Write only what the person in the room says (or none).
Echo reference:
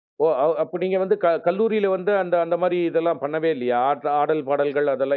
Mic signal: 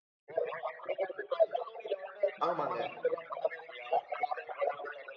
ஆமாங்க.